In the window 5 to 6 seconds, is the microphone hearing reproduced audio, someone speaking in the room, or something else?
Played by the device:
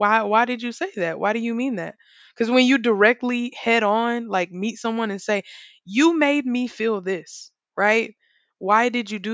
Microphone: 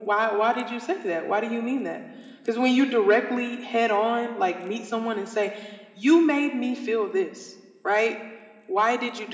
echo only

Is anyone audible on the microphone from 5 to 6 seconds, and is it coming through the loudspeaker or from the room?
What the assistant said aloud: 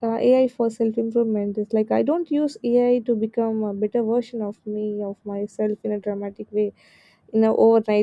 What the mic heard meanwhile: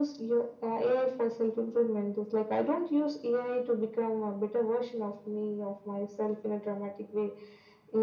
echo only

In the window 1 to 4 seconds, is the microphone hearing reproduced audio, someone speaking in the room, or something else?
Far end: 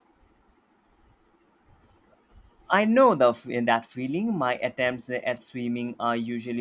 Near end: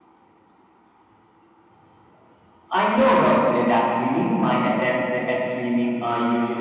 echo only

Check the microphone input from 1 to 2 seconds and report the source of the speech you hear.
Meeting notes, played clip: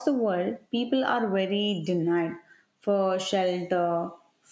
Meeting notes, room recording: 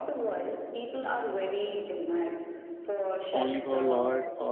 echo only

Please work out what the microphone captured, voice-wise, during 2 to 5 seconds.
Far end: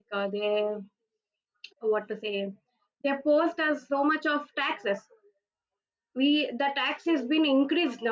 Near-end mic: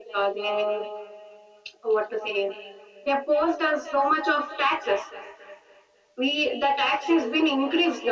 echo only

